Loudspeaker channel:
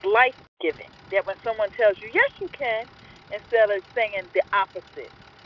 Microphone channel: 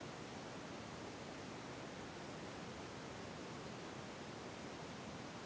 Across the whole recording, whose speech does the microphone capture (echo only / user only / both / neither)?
neither